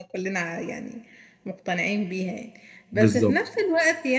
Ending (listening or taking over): listening